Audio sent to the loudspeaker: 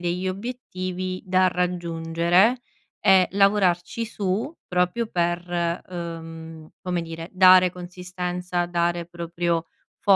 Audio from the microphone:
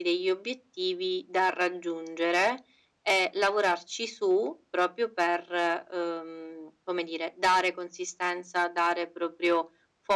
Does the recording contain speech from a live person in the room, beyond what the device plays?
No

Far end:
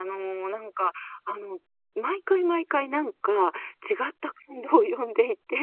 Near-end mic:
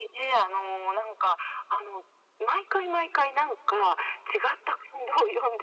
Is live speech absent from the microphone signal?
Yes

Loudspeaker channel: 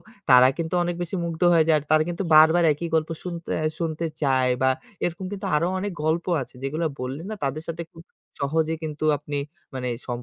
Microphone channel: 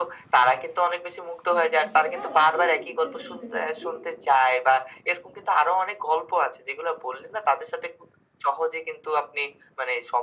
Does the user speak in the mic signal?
Yes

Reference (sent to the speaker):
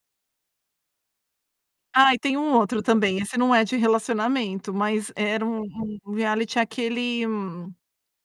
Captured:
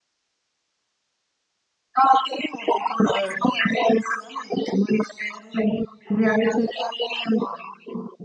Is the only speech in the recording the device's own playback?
No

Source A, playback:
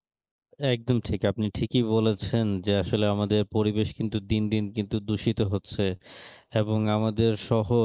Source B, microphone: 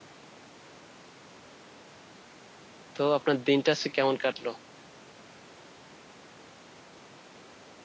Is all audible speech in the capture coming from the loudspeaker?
No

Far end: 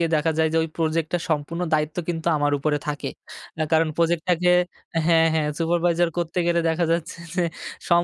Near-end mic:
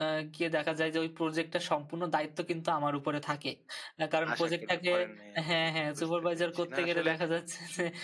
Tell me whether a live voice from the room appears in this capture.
Yes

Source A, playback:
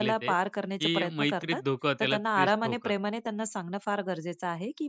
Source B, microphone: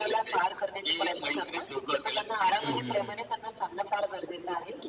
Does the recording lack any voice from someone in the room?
No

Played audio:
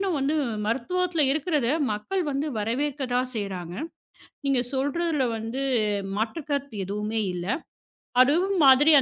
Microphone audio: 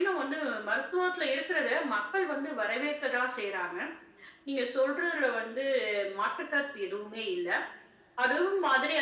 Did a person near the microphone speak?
No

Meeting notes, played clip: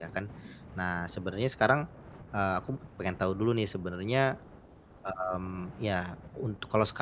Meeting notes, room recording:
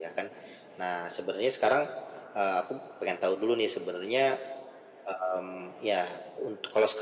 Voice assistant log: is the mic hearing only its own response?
Yes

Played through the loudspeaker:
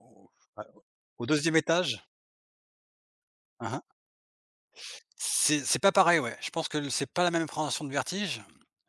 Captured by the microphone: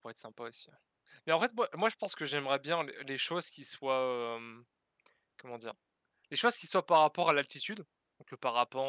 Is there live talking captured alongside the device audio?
Yes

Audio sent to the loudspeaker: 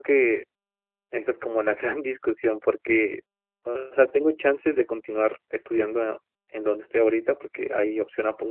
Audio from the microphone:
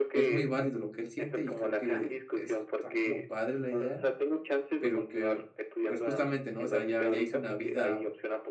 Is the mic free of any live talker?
No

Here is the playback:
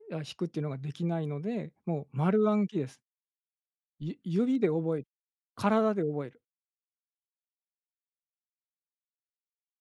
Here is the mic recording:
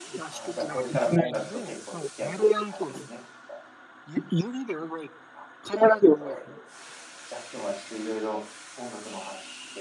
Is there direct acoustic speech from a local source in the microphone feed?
Yes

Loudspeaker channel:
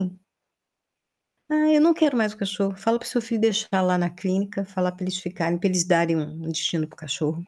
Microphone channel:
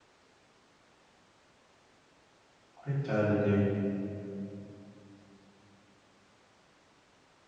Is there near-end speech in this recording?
Yes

